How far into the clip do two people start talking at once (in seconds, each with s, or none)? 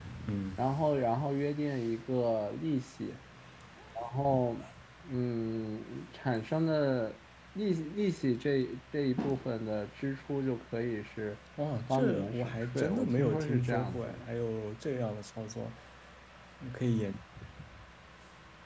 11.9 s